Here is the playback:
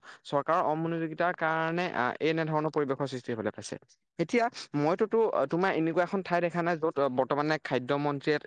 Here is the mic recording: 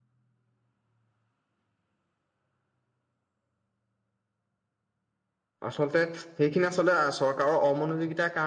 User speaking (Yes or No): Yes